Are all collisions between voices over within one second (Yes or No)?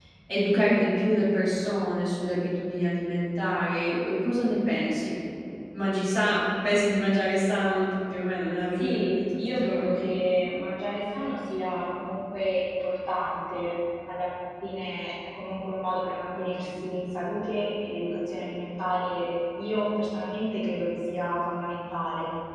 No